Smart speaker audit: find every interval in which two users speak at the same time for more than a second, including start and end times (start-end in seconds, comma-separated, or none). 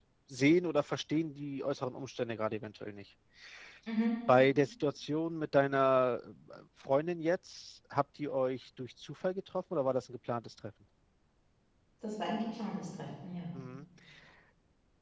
none